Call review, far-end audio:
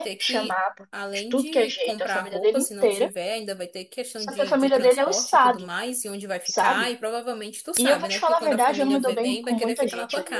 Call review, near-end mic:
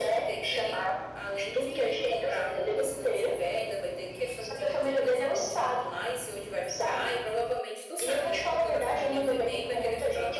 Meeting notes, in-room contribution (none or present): none